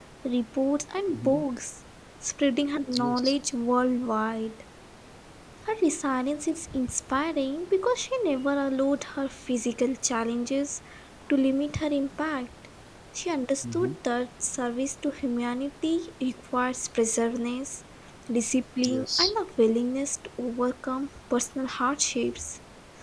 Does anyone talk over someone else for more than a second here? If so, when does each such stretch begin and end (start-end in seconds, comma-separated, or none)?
none